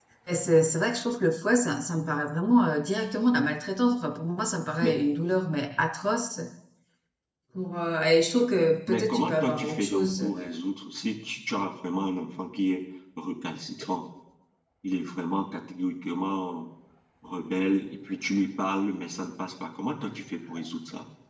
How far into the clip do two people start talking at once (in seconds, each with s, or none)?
8.9 s